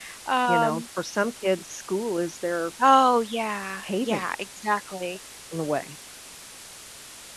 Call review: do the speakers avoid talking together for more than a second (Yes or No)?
Yes